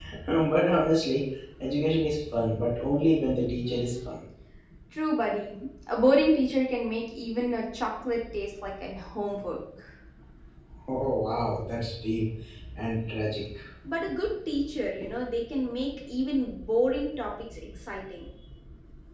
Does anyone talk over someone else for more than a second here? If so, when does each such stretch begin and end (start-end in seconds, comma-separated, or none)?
none